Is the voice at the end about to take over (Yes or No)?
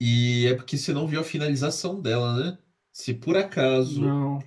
No